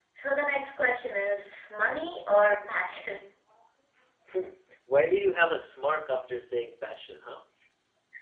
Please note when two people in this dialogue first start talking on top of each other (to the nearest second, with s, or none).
none